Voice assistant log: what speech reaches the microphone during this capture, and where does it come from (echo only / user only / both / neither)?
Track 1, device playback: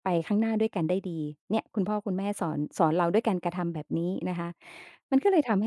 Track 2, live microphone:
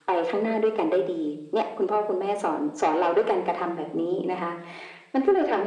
echo only